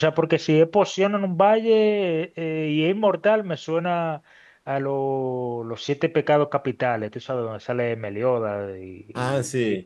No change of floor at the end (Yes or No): No